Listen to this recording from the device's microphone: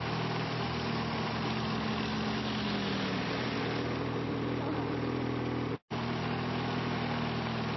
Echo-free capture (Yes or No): Yes